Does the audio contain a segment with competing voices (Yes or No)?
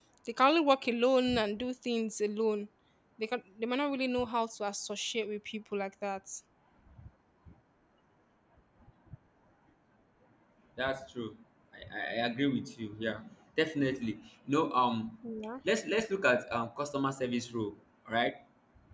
No